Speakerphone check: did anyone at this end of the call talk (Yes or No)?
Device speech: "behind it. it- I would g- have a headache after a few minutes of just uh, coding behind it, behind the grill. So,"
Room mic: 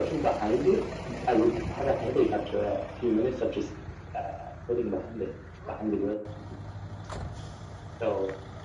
No